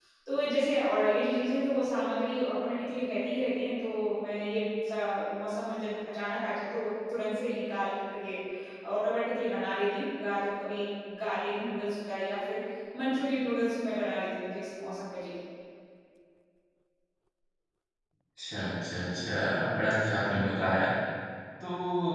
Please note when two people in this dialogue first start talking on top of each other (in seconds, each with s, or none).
none